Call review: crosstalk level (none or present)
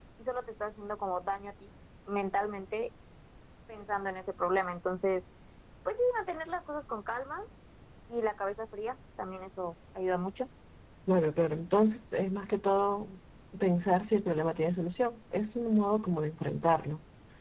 none